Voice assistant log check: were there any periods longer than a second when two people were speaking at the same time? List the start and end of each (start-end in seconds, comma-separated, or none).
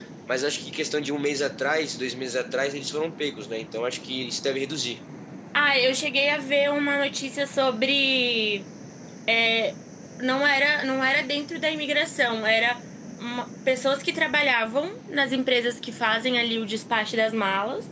none